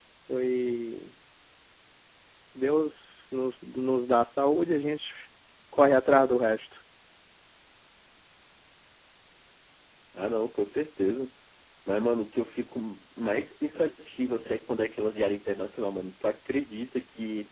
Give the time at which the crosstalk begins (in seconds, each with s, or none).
none